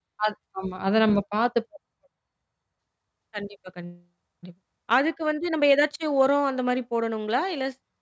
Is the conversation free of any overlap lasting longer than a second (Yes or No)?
Yes